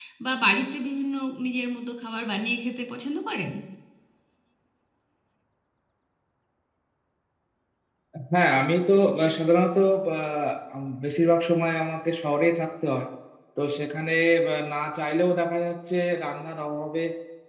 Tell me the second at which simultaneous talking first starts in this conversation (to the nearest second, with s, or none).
none